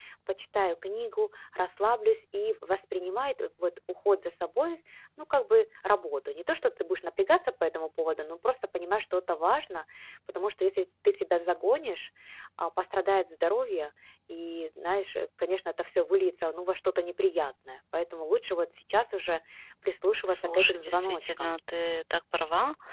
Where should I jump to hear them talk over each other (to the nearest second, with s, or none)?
20 s